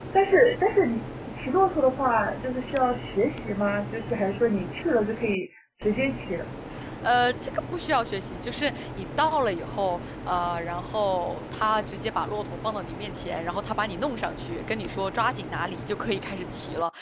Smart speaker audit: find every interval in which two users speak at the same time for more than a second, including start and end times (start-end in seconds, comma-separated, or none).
none